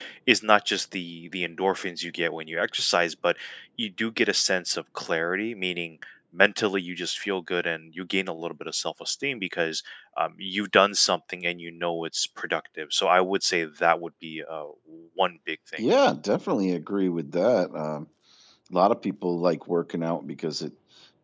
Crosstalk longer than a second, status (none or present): none